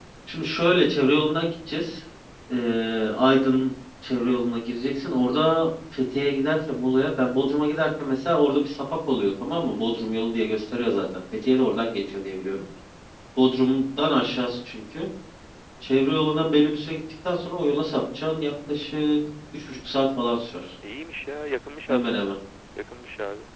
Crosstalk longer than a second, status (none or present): none